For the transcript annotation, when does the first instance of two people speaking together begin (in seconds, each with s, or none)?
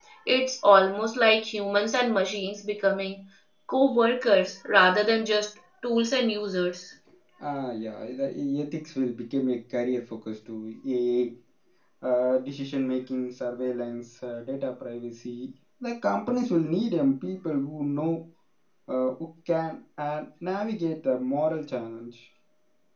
none